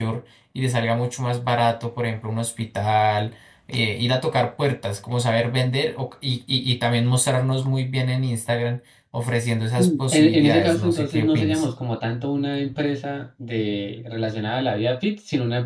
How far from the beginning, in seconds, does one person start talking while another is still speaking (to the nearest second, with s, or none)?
10 s